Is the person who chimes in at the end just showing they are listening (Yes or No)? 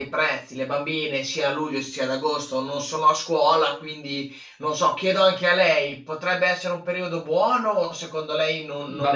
No